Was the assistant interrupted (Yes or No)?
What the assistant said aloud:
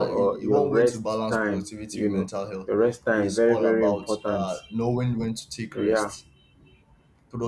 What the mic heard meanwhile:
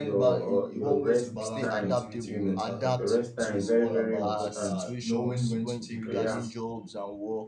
Yes